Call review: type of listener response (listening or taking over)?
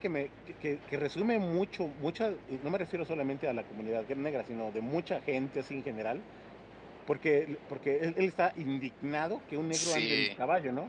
listening